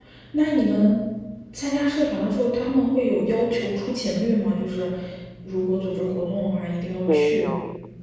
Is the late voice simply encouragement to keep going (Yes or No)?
No